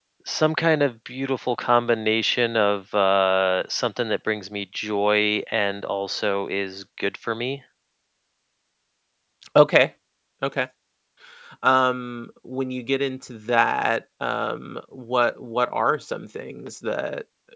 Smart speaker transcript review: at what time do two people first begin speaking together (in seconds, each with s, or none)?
none